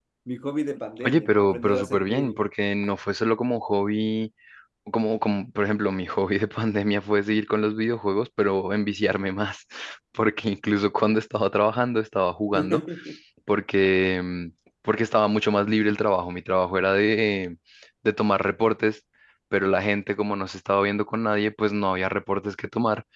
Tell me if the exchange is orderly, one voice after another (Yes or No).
No